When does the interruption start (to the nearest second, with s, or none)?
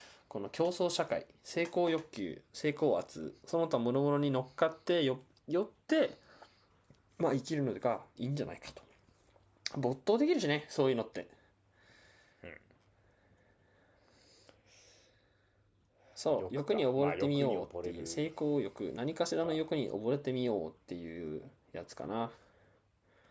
16 s